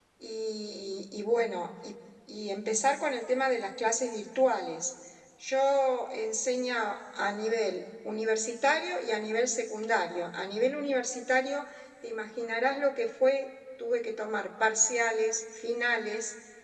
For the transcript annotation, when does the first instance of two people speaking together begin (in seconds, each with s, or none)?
none